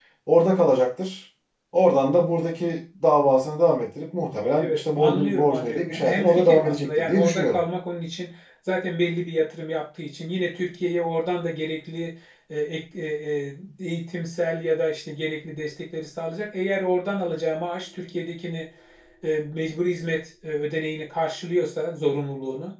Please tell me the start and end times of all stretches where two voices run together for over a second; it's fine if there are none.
4.6-7.6

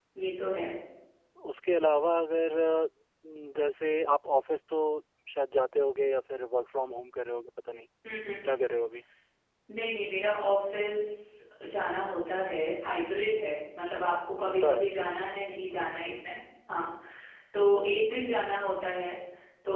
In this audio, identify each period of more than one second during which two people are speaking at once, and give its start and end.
none

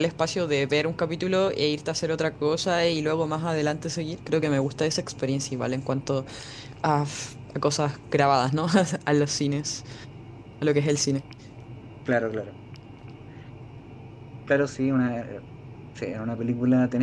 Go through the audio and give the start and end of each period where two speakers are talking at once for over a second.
none

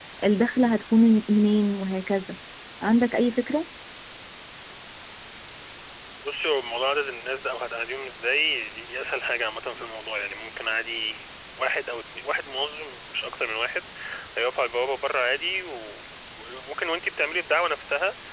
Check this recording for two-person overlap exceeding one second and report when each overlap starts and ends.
none

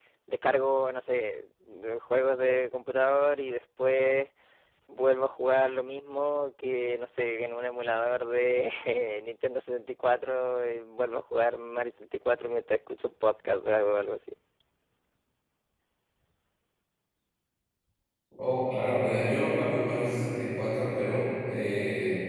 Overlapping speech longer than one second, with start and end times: none

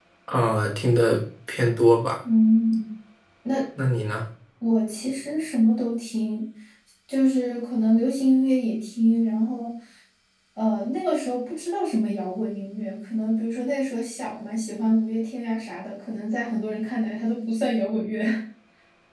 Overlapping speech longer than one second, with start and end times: none

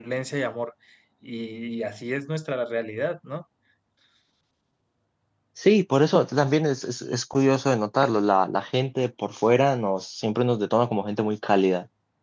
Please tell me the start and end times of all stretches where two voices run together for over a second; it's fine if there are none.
none

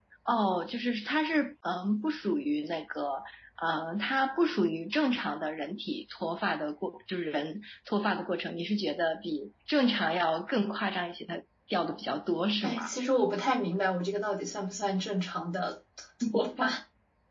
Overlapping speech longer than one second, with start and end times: none

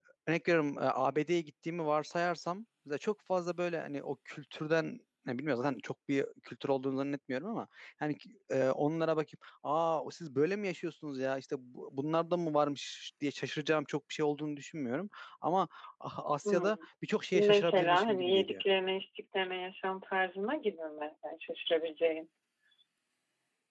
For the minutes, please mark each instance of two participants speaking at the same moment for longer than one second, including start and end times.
17.3-18.6

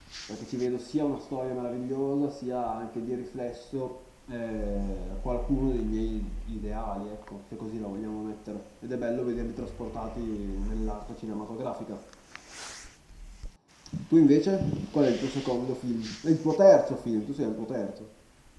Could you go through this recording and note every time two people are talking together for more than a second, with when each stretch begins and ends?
none

